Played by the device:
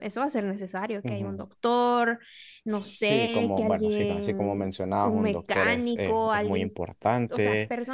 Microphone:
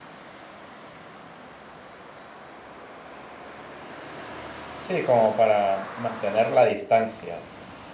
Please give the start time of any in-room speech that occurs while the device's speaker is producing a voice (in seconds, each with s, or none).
4.8 s